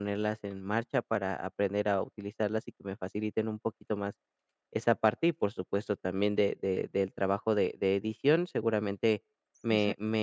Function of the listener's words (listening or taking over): listening